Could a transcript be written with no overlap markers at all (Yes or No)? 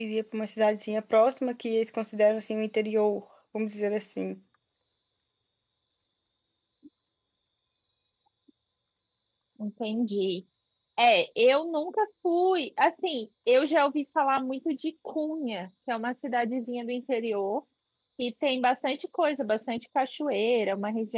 Yes